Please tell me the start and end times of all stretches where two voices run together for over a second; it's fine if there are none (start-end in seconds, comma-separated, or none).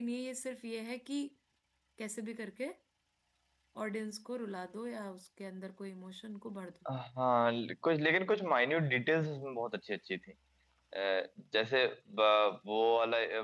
none